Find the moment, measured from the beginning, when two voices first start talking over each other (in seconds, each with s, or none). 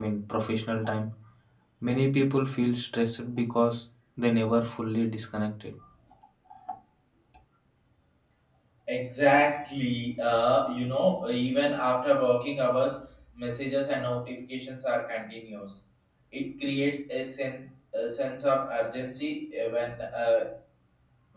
none